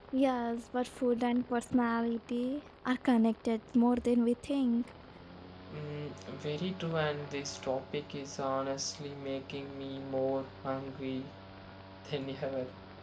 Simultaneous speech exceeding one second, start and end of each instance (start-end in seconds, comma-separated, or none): none